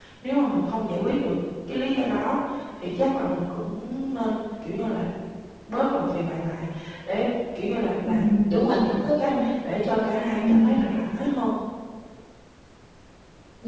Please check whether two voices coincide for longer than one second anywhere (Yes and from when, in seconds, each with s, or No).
Yes, from 8.1 s